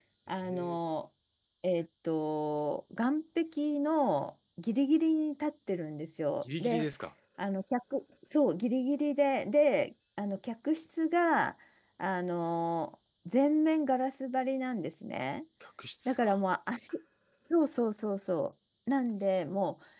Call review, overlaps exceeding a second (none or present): none